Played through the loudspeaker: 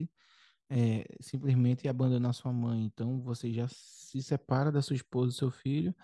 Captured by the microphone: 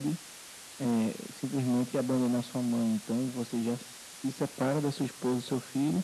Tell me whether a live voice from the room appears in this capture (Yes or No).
No